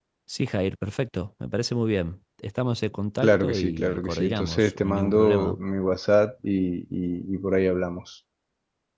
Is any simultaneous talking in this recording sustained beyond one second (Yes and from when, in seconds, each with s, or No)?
Yes, from 3.2 s